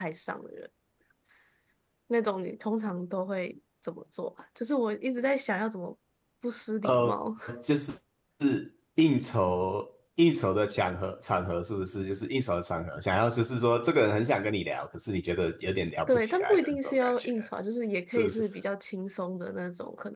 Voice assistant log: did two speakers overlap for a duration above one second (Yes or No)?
Yes